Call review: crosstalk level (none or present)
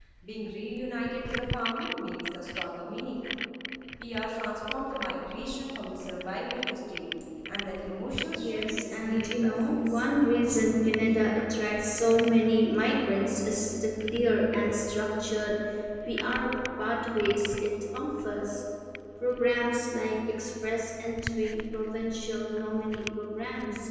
present